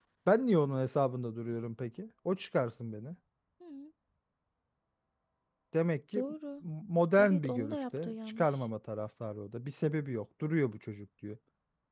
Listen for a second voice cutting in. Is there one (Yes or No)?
Yes